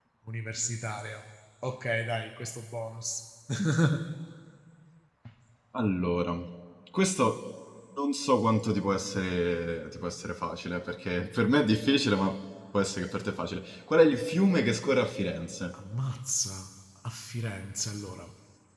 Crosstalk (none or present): none